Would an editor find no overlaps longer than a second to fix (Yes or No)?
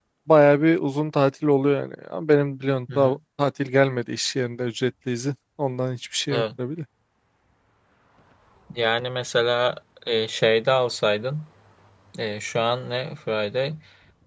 Yes